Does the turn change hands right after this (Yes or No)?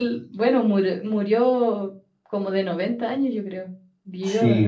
Yes